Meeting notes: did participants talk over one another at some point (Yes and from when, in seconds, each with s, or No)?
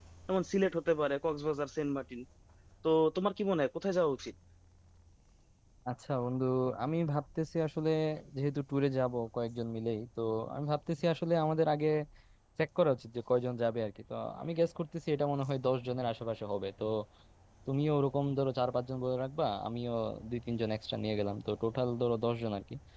No